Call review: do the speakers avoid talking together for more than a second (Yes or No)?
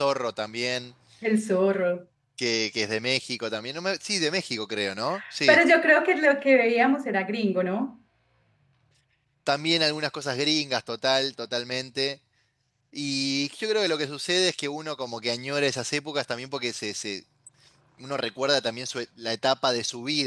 Yes